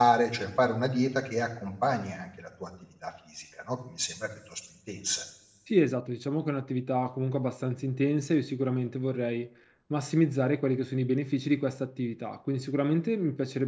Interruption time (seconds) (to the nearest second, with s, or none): none